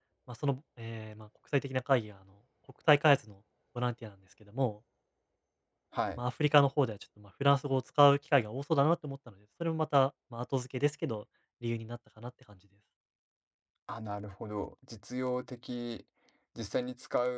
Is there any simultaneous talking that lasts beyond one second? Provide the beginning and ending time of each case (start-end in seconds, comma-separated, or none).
none